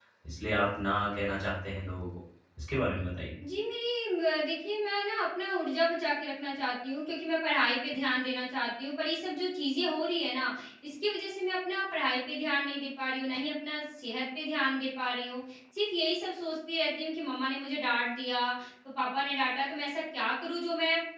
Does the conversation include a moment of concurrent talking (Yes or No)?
No